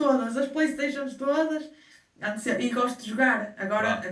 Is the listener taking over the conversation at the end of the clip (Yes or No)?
No